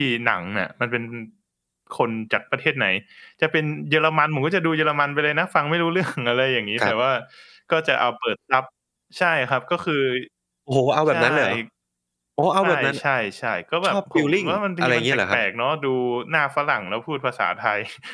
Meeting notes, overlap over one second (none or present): present